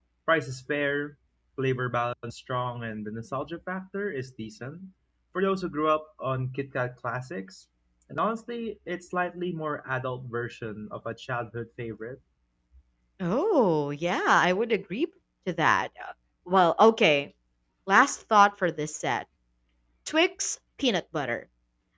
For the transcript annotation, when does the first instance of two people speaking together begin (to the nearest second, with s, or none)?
none